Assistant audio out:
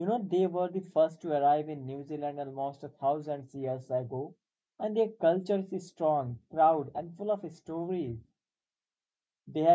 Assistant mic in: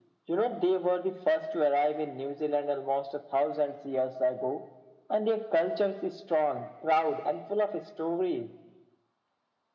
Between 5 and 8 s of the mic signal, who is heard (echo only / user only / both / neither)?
echo only